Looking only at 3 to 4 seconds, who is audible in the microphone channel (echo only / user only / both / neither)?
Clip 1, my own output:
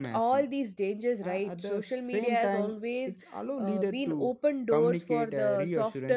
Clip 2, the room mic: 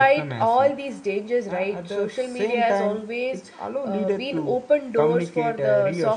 echo only